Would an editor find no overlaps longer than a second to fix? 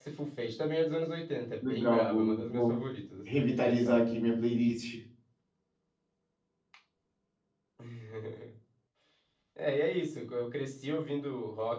No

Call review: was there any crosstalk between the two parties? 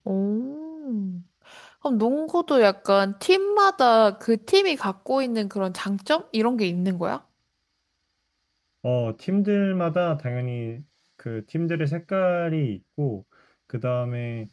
No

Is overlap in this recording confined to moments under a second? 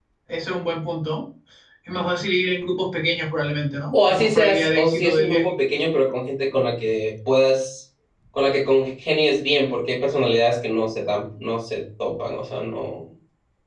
No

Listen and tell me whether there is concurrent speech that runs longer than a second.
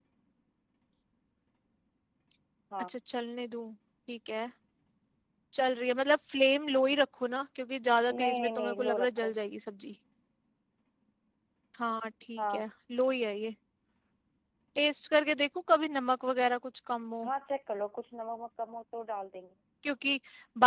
Yes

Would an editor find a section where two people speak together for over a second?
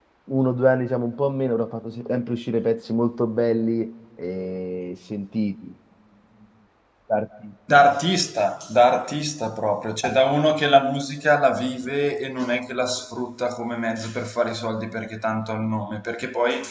No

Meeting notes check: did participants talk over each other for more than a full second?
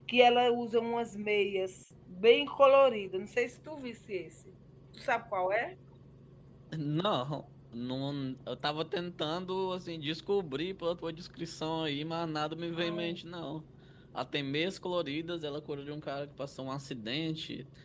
No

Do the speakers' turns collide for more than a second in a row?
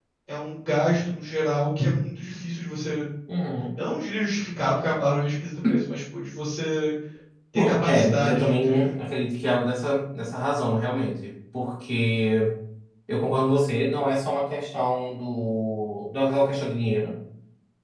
Yes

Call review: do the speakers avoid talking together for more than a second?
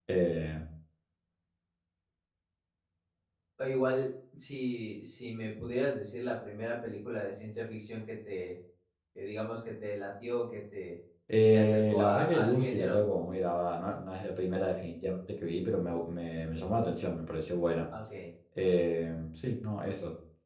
No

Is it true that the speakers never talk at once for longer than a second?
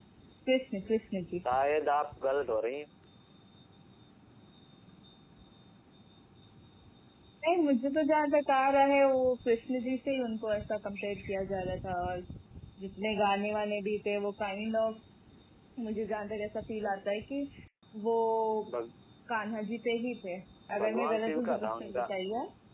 No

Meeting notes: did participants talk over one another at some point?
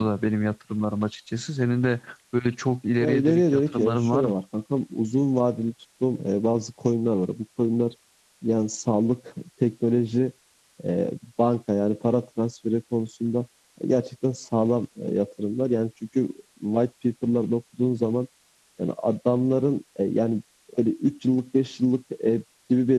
Yes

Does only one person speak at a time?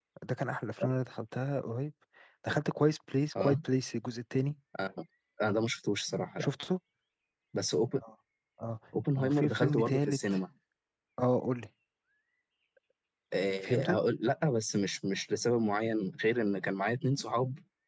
No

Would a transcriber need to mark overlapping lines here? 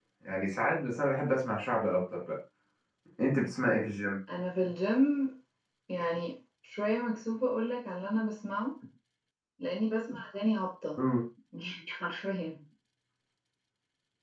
No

